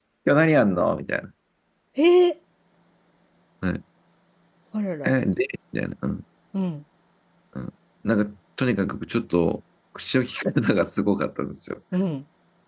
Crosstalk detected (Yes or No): No